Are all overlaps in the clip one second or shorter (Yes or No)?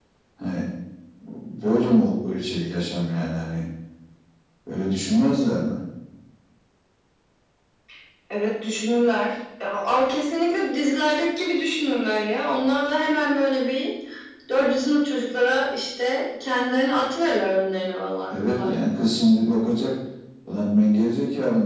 Yes